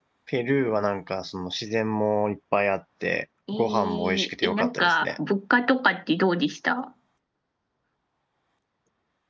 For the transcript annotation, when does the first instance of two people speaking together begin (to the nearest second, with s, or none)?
3 s